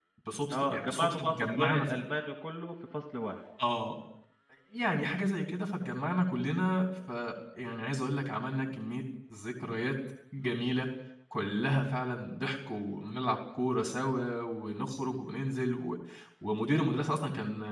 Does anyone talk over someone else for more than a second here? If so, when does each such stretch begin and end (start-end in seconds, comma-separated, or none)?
0.5-1.8